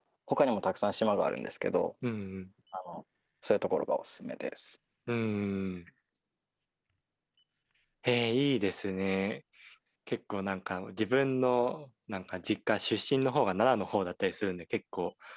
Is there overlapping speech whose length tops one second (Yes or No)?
No